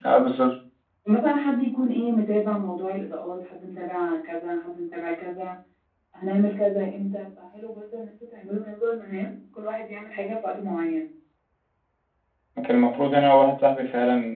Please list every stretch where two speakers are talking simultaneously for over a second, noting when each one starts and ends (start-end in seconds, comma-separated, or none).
none